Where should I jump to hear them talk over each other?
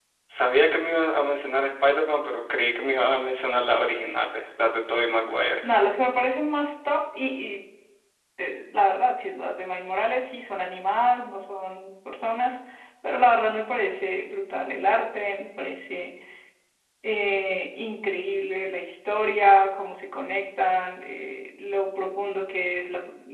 none

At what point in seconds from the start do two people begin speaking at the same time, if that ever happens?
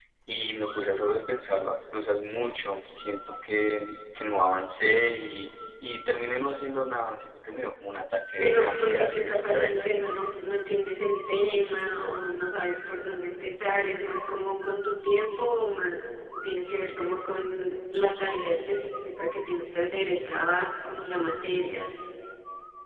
8.4 s

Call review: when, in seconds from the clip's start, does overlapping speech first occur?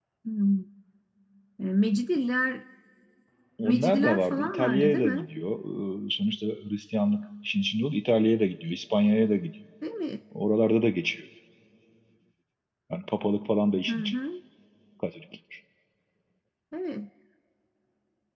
3.6 s

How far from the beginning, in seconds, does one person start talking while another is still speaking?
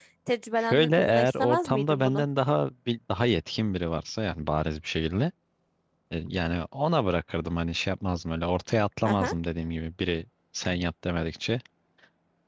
0.6 s

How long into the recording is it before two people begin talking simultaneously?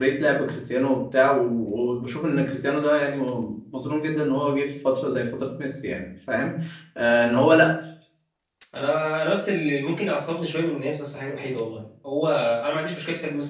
none

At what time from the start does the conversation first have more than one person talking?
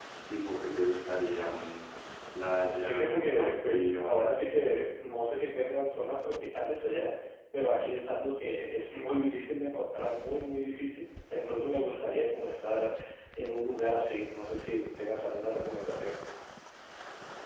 2.8 s

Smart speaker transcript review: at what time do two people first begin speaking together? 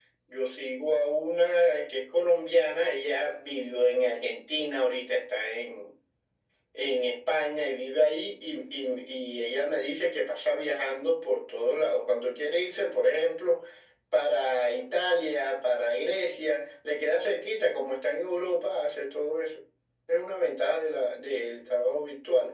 none

